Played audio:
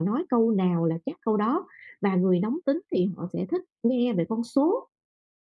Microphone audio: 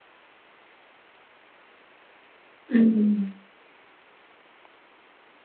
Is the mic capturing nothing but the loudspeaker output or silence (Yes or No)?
No